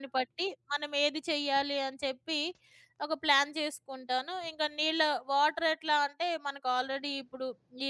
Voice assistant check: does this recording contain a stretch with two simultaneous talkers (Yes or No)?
No